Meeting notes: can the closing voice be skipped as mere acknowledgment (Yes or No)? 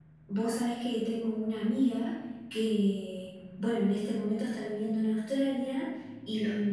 Yes